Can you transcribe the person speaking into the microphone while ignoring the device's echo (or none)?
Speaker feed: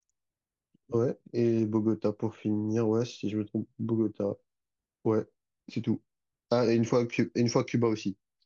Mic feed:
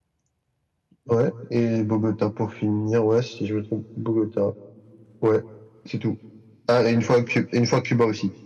none